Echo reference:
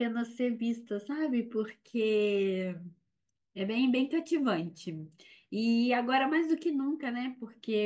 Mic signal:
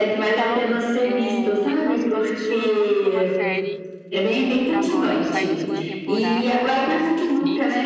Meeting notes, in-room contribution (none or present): present